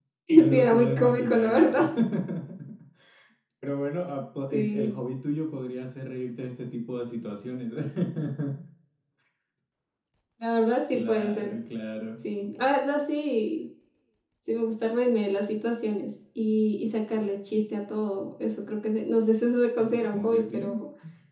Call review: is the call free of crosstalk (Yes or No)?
No